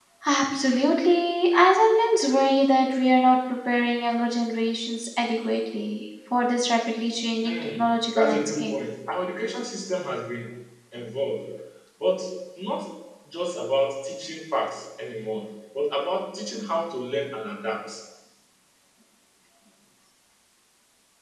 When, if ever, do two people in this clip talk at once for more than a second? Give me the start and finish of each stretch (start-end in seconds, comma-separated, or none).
7.5-8.7